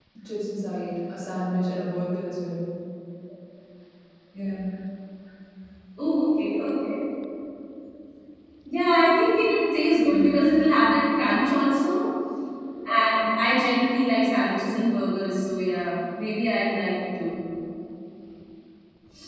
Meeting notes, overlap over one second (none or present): none